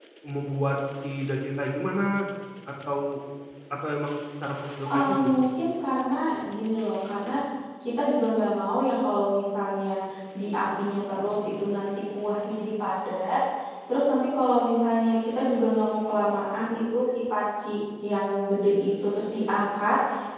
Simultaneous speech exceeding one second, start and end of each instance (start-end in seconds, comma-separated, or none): none